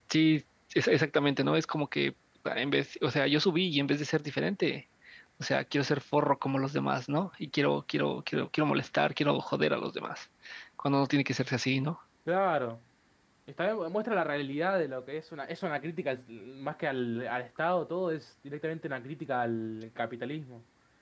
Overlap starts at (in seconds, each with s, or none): none